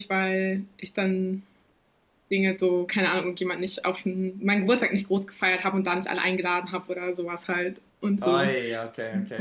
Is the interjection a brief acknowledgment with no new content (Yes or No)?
No